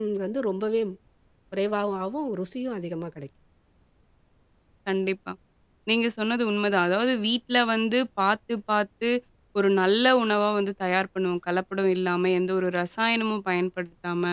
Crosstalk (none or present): none